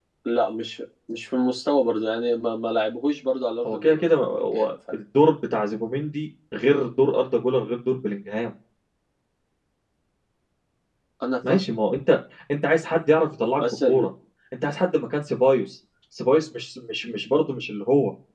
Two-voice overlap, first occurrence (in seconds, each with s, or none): 3.6 s